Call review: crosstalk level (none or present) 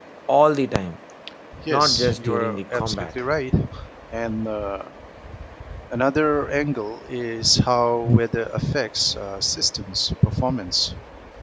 present